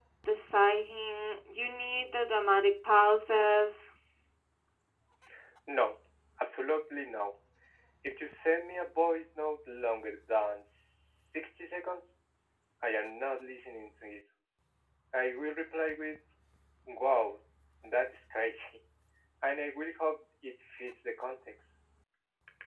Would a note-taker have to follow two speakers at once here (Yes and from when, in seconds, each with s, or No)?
No